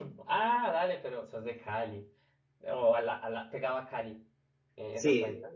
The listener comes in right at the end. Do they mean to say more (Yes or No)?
Yes